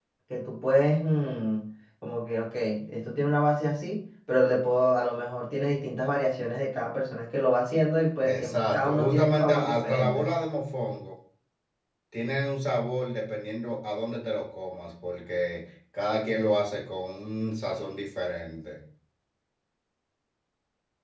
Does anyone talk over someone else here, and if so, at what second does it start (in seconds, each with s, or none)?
8.2 s